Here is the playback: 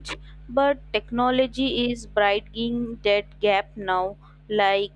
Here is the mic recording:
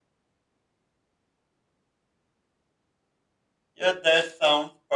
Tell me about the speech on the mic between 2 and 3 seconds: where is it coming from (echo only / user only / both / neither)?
neither